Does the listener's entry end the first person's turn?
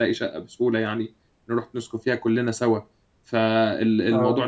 No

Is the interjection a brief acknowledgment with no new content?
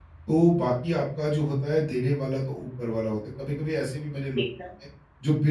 Yes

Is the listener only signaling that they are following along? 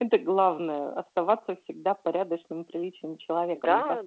No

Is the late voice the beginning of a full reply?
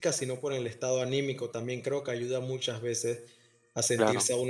No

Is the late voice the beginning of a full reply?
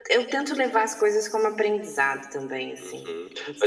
Yes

